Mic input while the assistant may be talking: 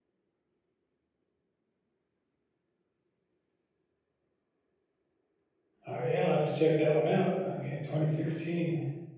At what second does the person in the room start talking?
5.9 s

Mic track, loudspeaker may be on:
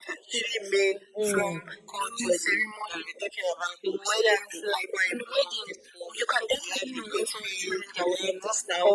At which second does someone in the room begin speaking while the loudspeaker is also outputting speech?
1.1 s

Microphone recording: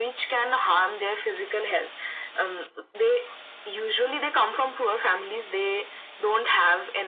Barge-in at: none

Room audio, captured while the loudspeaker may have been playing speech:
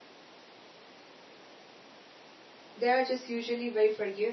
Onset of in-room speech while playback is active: 2.7 s

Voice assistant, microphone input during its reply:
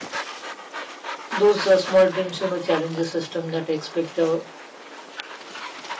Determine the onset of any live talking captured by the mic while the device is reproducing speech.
1.3 s

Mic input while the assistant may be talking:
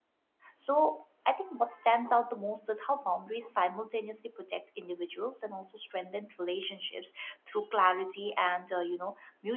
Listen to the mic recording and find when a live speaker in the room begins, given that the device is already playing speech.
0.5 s

